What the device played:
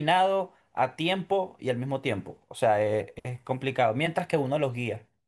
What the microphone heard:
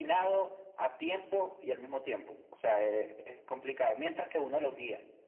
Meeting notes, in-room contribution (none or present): none